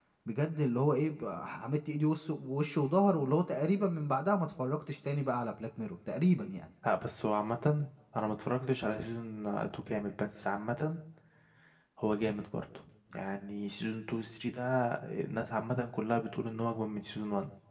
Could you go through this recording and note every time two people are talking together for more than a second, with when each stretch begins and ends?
none

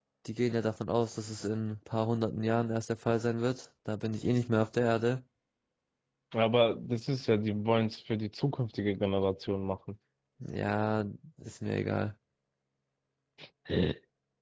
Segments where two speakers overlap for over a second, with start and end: none

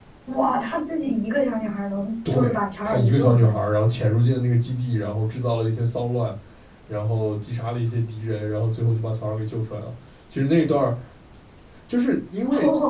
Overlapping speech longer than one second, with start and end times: 2.3-3.5

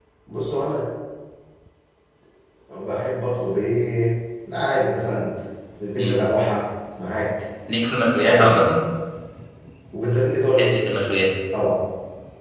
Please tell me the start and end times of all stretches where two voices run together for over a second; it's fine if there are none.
none

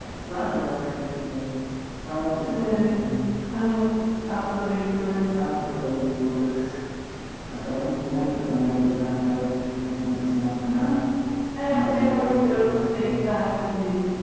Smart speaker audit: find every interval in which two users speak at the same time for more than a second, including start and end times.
11.7-13.3

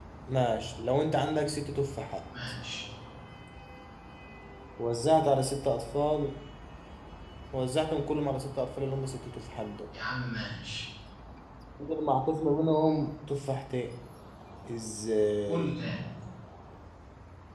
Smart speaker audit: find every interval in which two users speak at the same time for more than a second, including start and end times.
none

